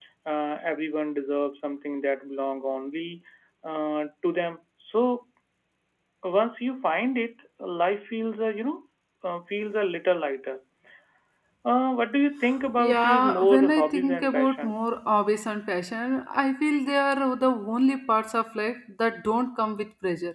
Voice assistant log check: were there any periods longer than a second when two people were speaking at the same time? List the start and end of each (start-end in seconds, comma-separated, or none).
12.8-14.8